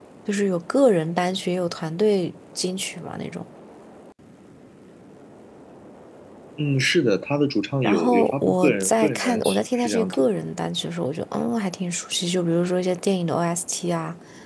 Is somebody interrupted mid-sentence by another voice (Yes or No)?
Yes